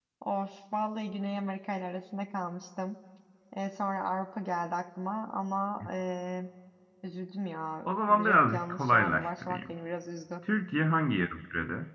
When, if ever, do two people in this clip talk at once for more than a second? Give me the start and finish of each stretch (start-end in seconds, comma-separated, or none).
7.8-9.7